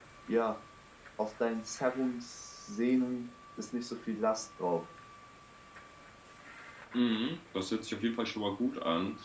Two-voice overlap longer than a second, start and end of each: none

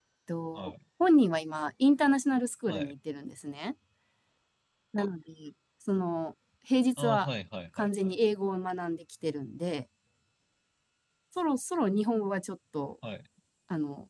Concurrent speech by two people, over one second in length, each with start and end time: none

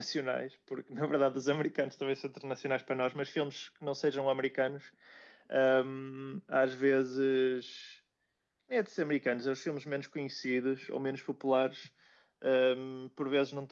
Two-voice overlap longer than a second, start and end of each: none

